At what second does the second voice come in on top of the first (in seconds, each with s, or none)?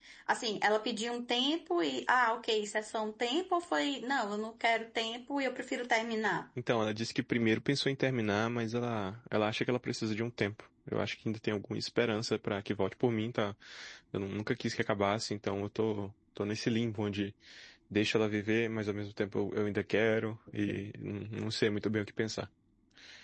none